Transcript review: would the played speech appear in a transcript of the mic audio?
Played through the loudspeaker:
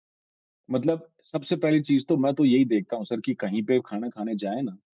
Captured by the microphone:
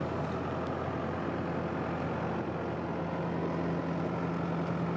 No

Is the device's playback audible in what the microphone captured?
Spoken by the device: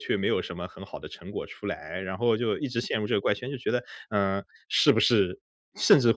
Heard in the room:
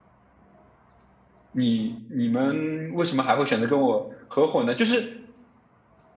No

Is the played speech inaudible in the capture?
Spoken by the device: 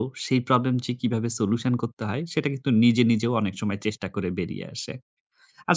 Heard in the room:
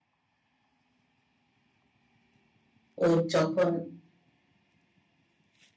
Yes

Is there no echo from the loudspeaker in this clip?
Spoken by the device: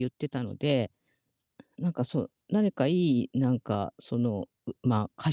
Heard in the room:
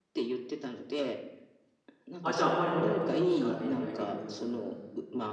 No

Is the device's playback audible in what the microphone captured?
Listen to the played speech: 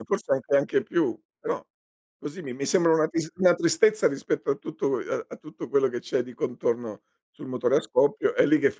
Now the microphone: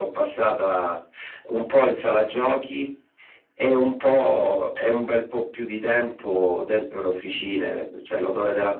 No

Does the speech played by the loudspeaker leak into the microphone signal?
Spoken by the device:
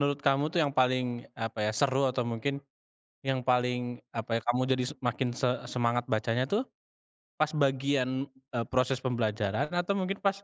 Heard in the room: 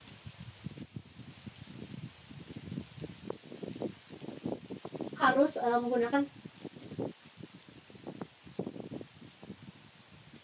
No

